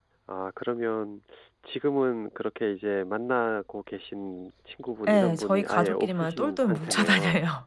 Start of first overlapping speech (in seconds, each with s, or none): 5.0 s